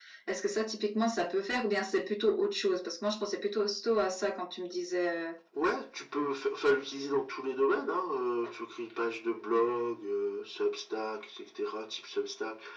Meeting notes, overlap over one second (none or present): none